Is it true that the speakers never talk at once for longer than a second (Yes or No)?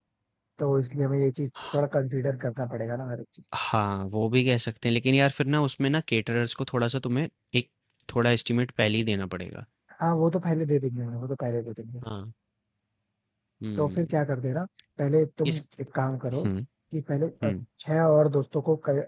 Yes